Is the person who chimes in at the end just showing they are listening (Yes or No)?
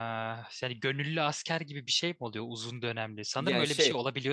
Yes